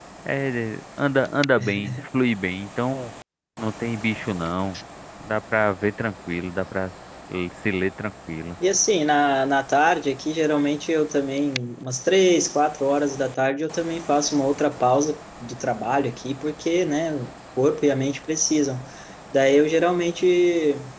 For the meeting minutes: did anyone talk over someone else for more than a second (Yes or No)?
No